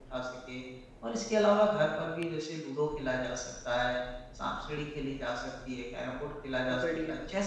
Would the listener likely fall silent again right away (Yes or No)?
Yes